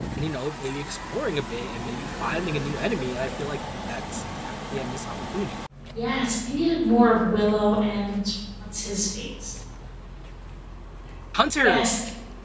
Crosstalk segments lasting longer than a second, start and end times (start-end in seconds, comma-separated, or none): none